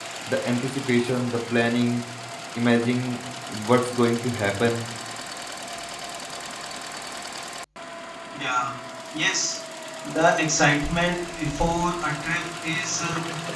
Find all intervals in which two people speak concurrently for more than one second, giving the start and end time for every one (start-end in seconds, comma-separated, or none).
none